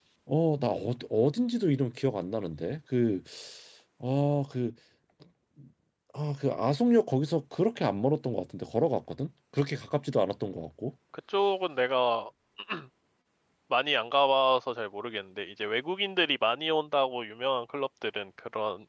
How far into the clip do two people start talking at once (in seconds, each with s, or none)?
none